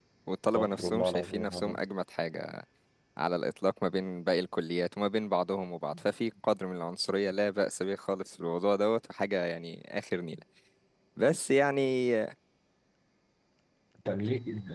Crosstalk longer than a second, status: present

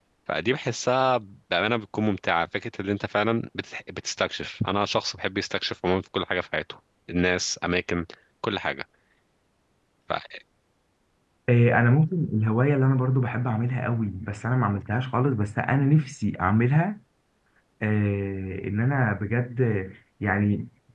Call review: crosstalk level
none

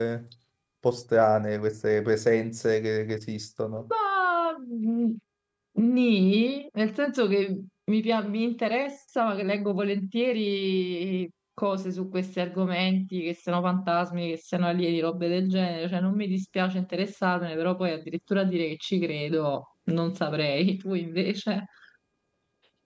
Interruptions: none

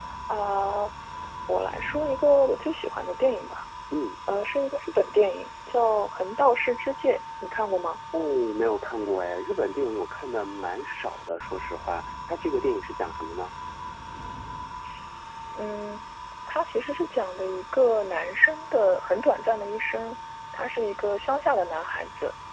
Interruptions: none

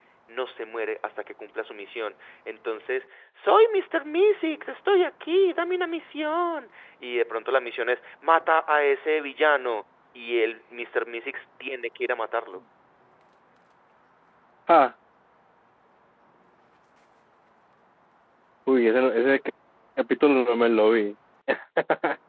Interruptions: none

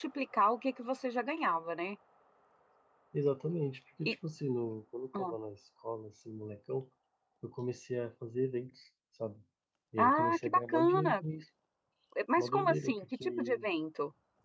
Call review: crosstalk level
present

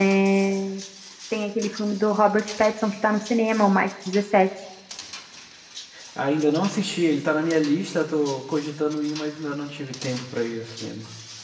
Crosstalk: none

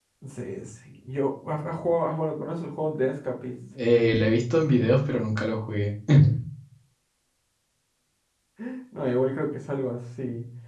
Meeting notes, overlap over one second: none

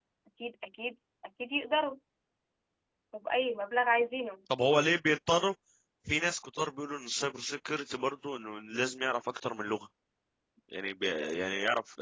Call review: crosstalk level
none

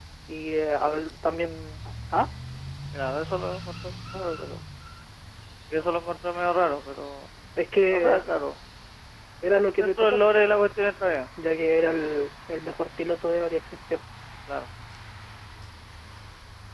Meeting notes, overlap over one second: none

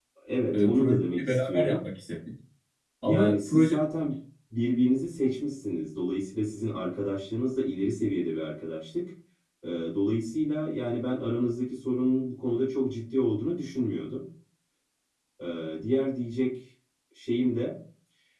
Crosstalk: present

